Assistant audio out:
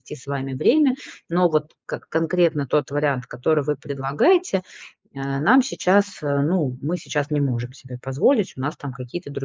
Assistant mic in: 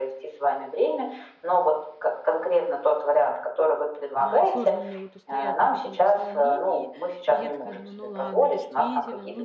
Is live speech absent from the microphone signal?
No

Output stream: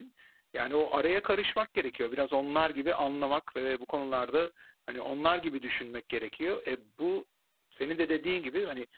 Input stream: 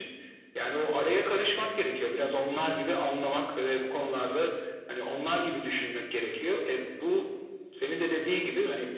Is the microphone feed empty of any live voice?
Yes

